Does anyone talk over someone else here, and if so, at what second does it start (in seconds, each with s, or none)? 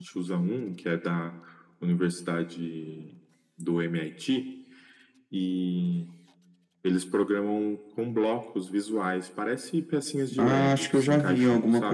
10.3 s